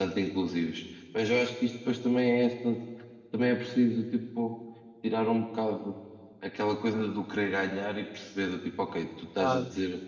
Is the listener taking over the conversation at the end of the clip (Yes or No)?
No